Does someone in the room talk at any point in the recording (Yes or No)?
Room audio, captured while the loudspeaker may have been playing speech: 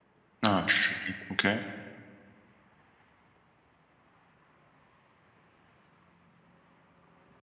Yes